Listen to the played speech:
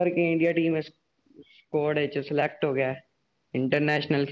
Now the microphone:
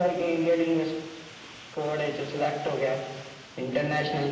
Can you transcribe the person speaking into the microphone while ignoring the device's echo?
none

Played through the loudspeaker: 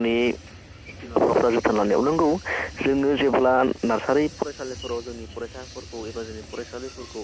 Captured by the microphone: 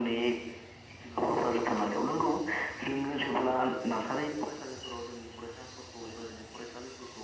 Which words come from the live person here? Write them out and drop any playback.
none

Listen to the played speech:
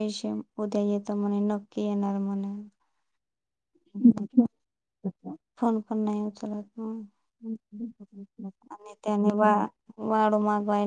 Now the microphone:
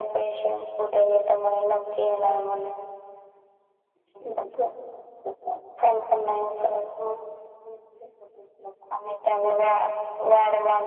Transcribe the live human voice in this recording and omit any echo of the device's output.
none

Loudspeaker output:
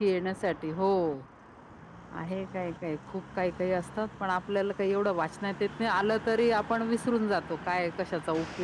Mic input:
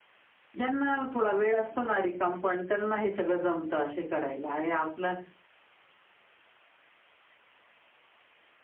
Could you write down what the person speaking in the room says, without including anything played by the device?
ज्यांना थोडा वेळ असतो ना रिकाम पण त्यांना हे सगळं जम त असे करायला हे आपलं

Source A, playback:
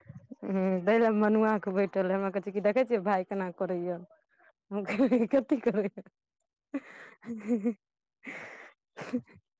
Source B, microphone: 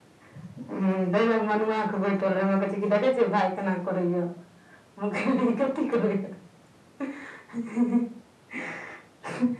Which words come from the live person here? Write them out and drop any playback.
none

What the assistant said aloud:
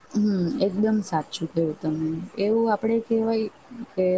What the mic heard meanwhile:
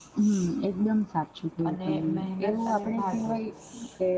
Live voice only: અને મહેનત અને ભાગ્ય

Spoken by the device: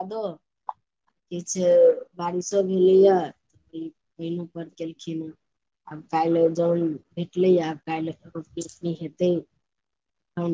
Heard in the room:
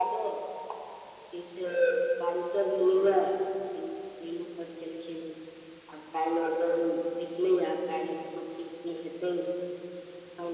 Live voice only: none

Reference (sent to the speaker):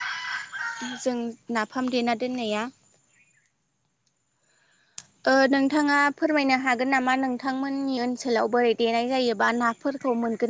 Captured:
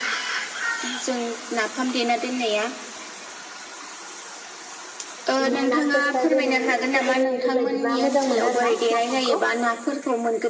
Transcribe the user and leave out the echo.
बिदिनो ना फिसा फिसा जेरै फिथिख्रि बेफोरबायदिबा मोजां मोनो आरोना नाफामखौ

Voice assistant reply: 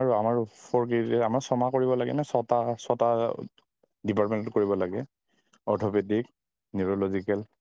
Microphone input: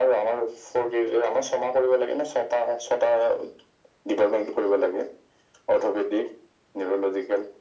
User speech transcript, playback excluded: none

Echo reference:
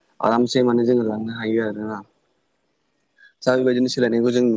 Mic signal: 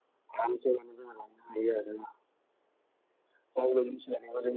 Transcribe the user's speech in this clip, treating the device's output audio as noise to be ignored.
none

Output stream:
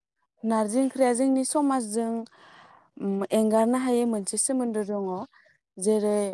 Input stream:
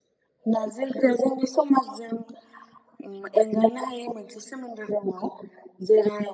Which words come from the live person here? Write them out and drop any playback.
none

